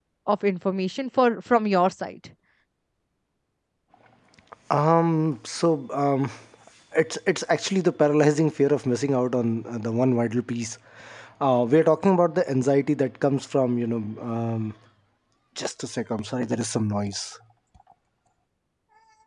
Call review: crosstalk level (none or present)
none